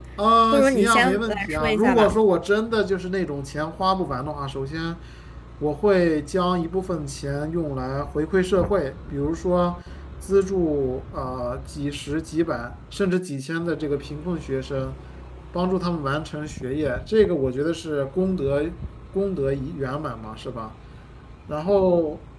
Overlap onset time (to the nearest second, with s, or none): 1 s